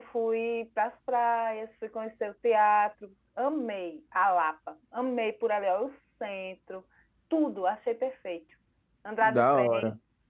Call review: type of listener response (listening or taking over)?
taking over